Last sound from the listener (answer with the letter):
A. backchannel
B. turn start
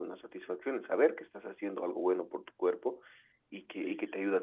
A